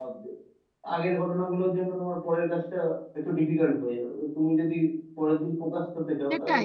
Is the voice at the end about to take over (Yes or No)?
Yes